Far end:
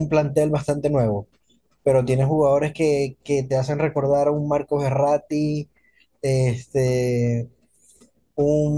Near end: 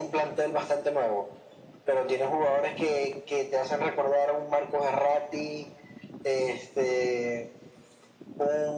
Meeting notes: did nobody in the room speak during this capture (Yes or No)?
Yes